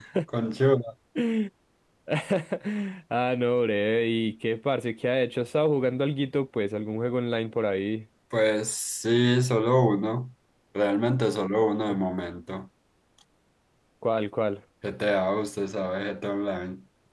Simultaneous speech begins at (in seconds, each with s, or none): none